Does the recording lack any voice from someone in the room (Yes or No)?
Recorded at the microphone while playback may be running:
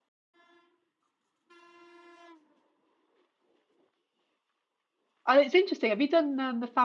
No